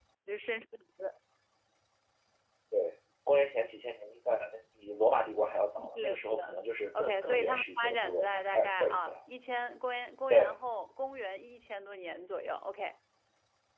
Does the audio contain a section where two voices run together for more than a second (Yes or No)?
Yes